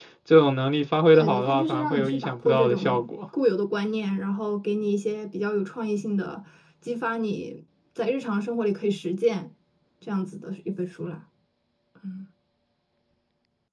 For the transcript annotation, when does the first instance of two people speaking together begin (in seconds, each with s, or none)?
1.1 s